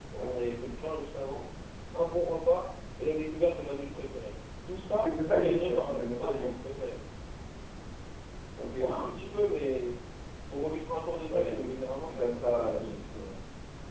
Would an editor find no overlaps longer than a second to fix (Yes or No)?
No